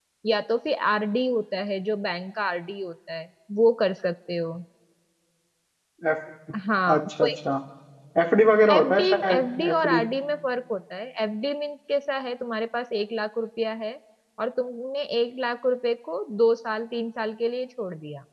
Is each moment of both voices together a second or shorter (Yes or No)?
No